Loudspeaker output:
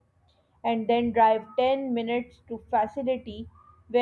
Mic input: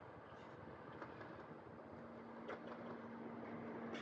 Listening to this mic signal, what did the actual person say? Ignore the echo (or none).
none